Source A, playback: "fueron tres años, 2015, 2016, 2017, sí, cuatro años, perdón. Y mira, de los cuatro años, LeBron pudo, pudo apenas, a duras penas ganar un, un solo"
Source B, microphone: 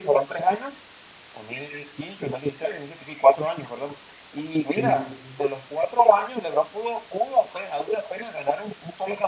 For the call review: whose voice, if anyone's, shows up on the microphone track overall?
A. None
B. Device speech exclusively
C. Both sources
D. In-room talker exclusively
C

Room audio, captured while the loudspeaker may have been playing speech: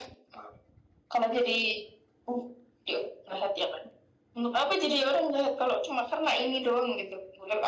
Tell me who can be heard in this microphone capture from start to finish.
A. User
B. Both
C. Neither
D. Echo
D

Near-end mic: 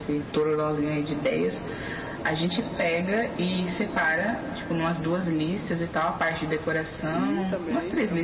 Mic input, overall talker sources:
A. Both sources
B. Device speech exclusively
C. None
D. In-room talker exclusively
A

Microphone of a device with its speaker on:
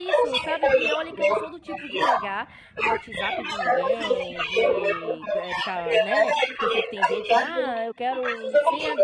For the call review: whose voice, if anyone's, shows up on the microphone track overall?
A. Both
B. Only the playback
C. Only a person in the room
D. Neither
A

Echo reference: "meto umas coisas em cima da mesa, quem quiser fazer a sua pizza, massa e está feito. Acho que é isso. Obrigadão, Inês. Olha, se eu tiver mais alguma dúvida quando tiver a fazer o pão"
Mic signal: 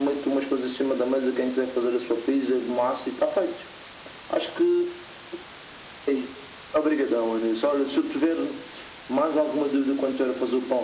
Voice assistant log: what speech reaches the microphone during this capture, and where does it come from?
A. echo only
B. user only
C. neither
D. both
A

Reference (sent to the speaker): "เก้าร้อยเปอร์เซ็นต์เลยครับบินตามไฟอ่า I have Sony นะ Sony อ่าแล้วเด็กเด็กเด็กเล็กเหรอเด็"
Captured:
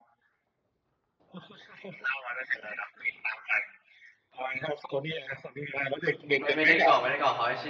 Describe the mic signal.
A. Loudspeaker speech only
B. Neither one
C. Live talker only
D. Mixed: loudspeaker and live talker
D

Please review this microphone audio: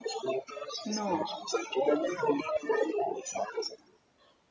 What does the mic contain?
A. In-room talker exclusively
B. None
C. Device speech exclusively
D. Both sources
D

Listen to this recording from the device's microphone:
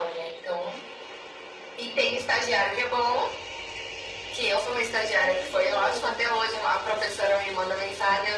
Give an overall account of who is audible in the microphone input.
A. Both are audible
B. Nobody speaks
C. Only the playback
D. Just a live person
A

